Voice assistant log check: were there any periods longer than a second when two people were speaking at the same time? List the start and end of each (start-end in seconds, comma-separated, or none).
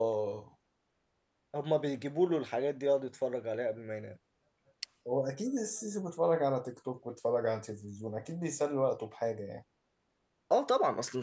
none